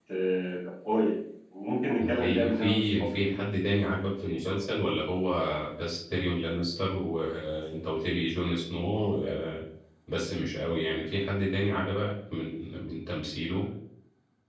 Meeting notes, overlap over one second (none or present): present